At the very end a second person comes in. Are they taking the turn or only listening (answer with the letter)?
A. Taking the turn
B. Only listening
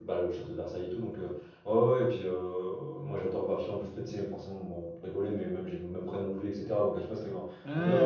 B